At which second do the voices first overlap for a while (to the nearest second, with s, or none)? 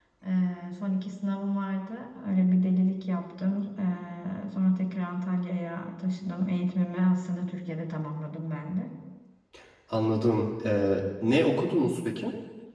none